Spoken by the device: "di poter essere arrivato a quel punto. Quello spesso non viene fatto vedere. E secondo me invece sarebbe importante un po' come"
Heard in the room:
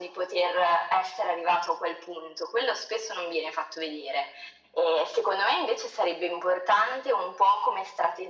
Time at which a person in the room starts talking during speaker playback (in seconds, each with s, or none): none